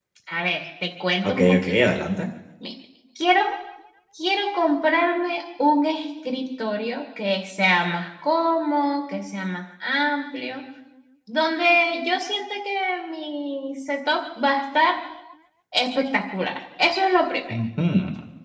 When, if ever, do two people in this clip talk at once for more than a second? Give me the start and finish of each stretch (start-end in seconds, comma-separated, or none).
none